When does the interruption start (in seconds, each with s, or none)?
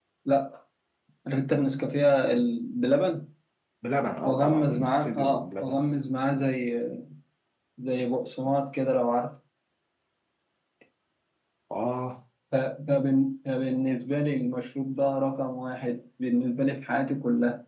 4.2 s